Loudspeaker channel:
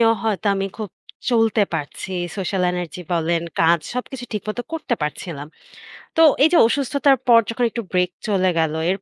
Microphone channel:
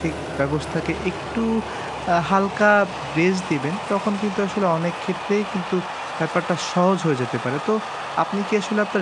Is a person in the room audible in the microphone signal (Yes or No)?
Yes